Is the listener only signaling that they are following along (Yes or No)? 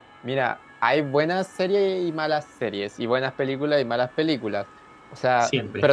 Yes